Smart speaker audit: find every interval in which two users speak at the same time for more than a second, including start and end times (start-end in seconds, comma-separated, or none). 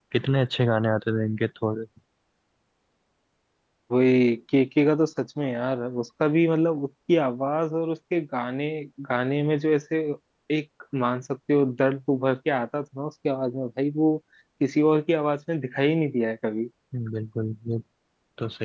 none